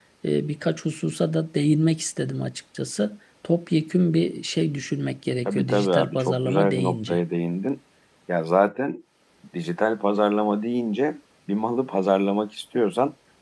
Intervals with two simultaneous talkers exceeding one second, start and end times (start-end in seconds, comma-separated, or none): 5.5-7.2